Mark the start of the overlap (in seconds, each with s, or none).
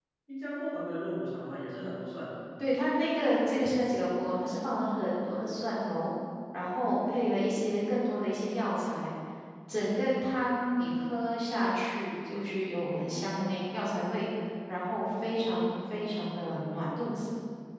none